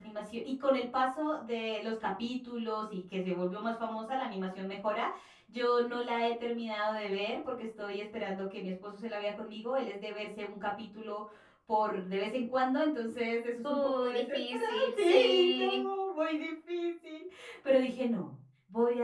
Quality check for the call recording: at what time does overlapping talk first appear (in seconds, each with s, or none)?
13.6 s